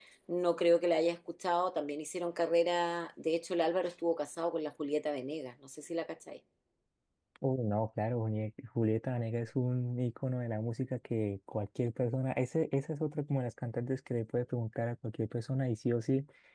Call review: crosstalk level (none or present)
none